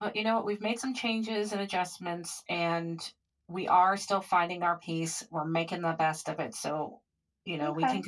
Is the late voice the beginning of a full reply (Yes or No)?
Yes